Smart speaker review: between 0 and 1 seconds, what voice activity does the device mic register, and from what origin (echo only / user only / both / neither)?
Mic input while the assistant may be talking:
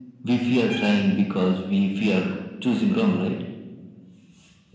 echo only